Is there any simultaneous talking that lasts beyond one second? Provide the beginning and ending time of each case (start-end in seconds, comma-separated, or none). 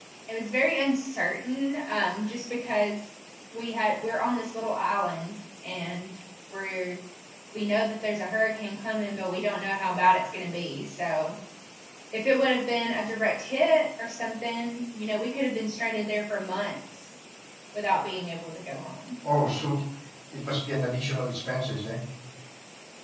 none